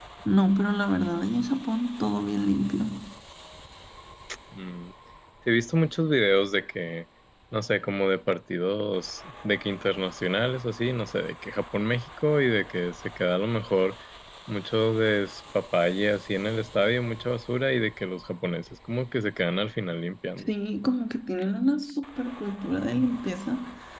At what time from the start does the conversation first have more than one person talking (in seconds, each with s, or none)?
none